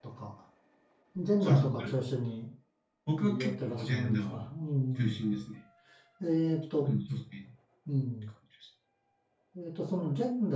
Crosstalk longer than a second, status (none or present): present